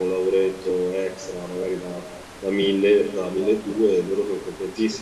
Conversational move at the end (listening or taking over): listening